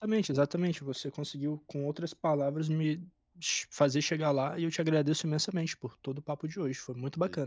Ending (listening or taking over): taking over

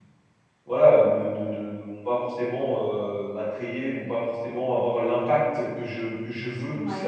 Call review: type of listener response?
taking over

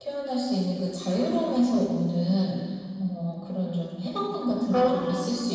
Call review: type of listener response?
listening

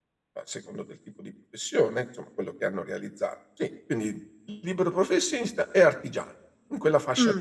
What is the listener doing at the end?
taking over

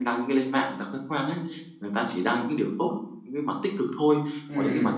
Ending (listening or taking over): listening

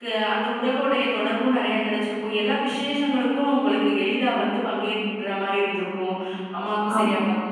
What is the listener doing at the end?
listening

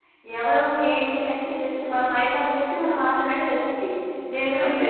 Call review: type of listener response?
listening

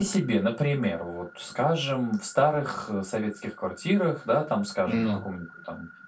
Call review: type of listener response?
listening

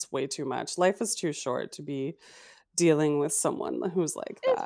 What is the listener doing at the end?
taking over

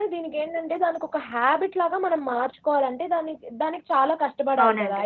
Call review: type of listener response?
listening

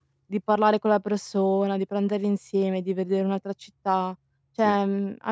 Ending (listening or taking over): listening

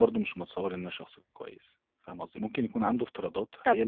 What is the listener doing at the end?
listening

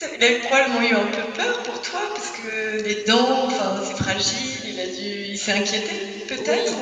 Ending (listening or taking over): taking over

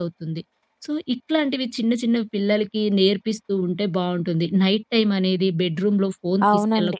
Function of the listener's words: listening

